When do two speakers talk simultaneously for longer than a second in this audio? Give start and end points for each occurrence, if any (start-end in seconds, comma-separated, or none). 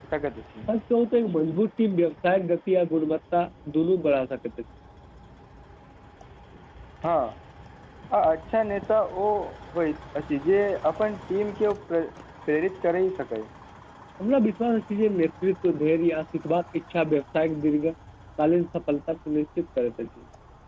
none